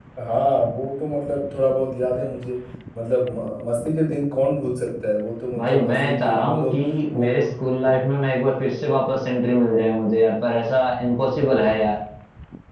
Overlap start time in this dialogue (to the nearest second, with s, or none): 6 s